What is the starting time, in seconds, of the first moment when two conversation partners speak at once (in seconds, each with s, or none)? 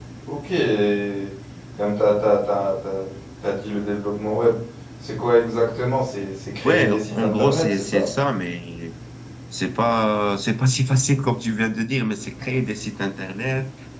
6.6 s